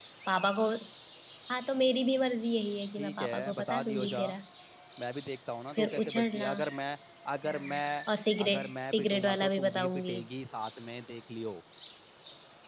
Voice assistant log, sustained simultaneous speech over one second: present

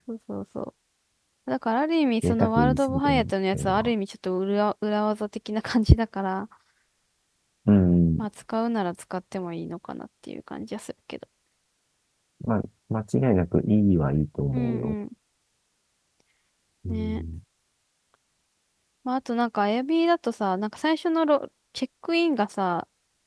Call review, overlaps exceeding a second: present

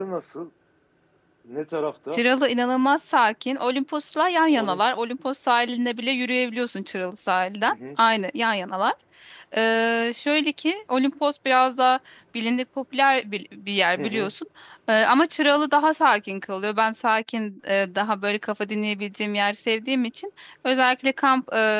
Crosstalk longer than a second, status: none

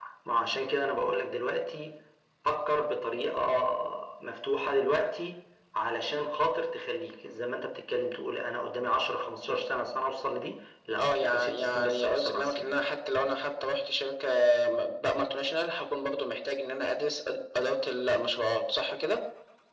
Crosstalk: present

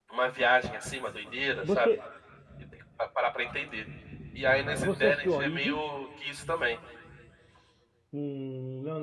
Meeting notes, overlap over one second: present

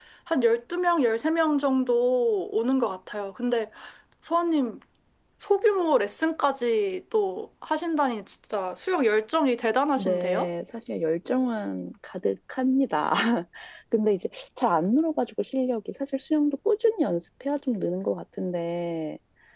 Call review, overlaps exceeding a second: none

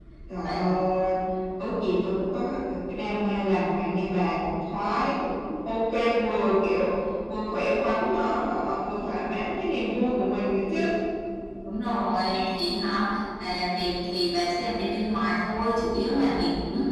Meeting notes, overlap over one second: none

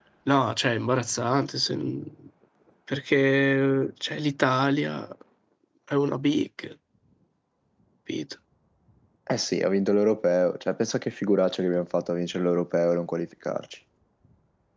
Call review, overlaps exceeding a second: none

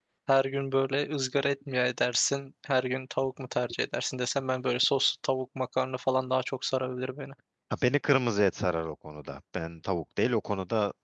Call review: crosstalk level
none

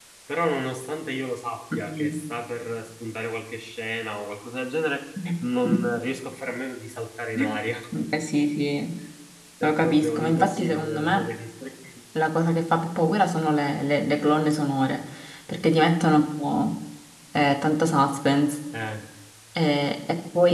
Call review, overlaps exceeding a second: present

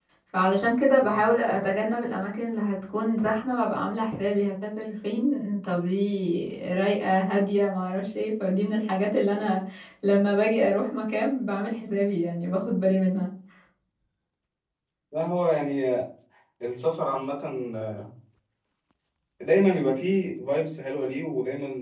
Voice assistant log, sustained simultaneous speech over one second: none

